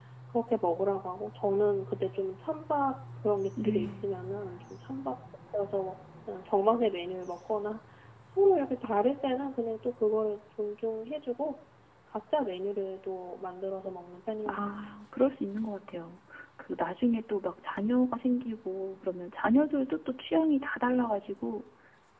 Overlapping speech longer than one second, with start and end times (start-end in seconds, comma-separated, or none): none